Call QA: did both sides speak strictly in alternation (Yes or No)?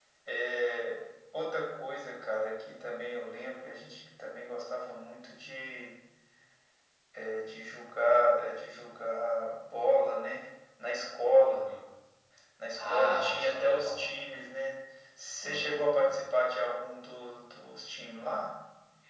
No